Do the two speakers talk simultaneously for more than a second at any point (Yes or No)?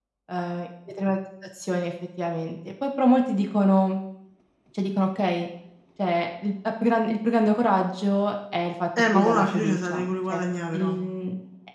Yes